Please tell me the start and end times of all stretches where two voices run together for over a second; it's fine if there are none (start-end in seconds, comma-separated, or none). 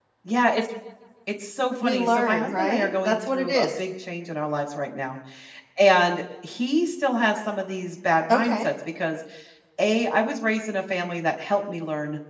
1.8-3.7